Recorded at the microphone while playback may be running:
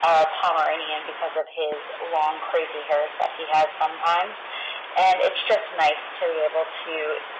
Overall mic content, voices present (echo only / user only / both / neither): echo only